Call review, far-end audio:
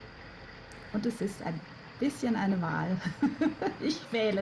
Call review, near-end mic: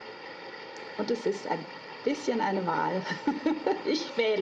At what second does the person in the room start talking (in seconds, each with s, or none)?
none